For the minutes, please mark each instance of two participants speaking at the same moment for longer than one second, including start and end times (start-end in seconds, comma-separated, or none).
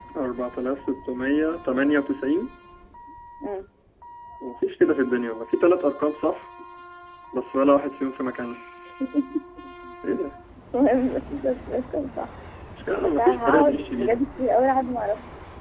13.0-14.2